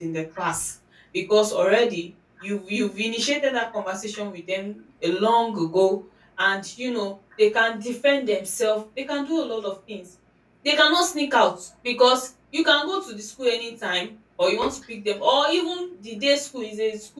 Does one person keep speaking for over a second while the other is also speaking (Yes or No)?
No